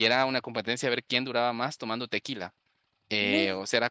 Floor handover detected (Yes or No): No